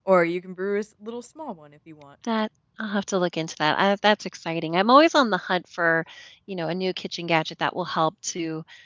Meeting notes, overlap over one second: none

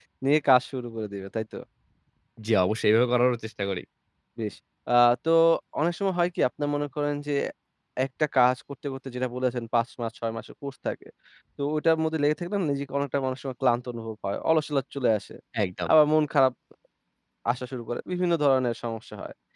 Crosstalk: none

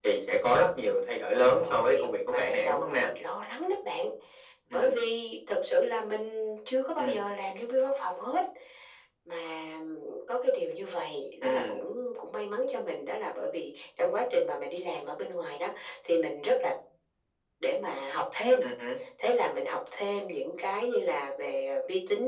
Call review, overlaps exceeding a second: present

